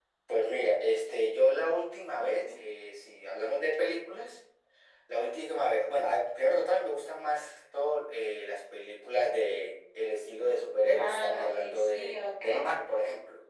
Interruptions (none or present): present